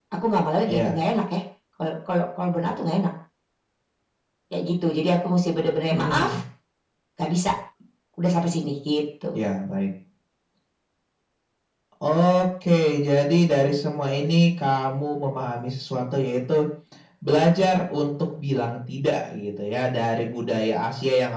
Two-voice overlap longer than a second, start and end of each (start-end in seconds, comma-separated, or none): none